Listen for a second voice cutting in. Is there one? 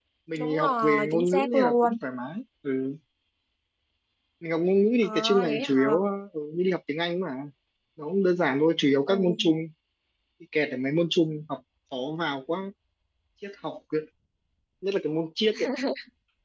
Yes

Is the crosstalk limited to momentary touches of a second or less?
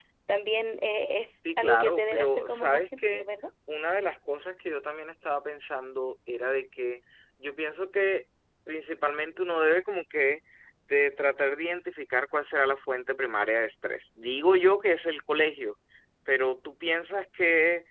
No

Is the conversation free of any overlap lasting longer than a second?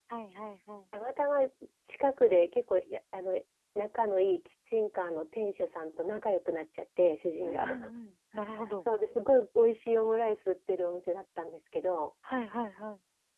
Yes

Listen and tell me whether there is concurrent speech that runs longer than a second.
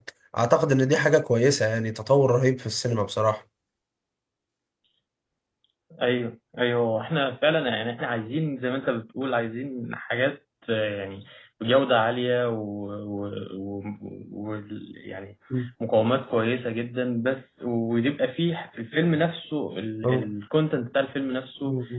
No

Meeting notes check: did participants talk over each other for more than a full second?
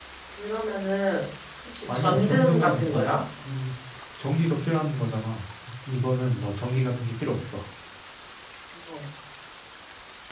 Yes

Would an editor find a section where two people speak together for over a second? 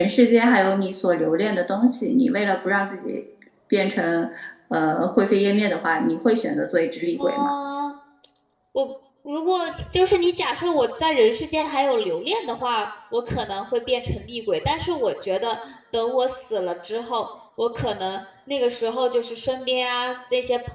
No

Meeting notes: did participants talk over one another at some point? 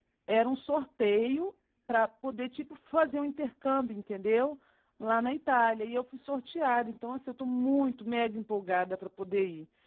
No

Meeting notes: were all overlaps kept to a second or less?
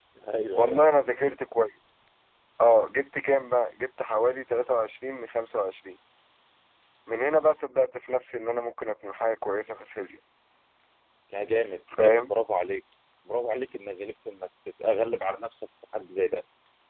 Yes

